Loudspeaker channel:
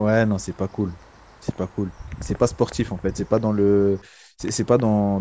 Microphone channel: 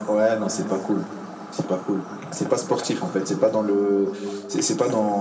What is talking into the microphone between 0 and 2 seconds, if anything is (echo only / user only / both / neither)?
echo only